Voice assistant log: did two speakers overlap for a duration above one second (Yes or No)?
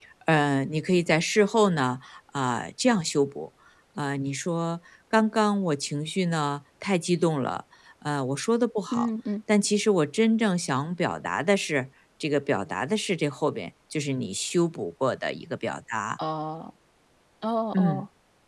No